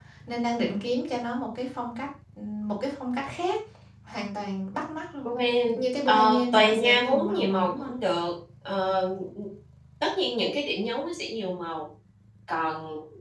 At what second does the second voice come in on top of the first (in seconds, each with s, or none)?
6.1 s